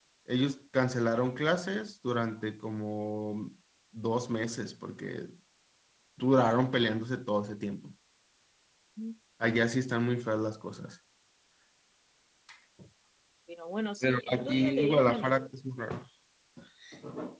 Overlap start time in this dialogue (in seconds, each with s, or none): 14.0 s